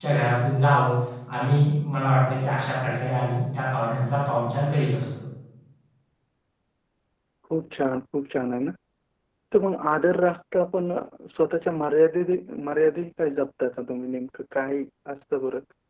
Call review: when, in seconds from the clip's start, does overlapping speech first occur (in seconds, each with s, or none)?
none